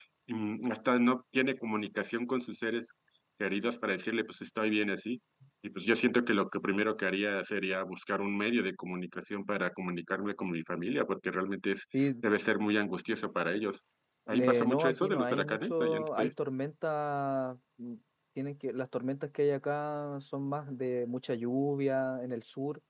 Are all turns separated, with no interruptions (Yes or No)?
No